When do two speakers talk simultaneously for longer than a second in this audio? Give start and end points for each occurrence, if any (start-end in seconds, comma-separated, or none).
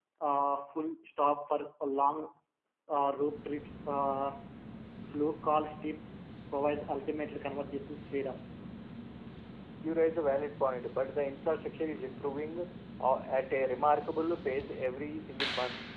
none